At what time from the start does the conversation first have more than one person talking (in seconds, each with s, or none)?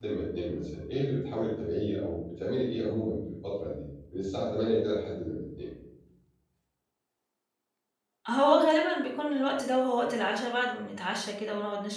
none